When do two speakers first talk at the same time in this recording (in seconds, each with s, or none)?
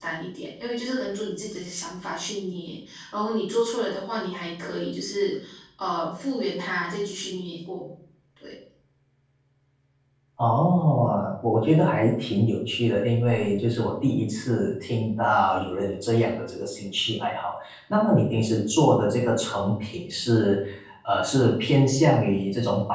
none